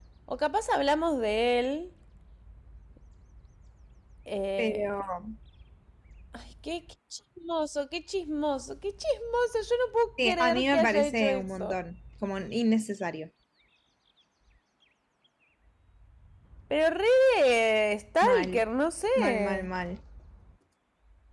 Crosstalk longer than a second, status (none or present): present